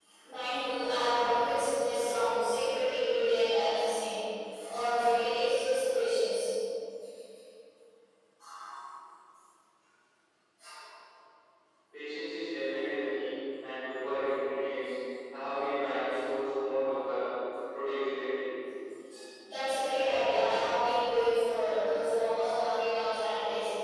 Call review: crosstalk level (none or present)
none